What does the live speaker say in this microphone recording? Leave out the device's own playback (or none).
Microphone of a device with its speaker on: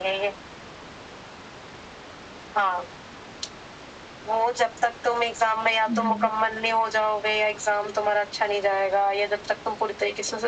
ہ